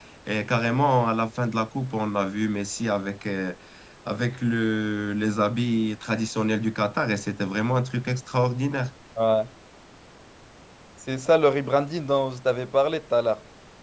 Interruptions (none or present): none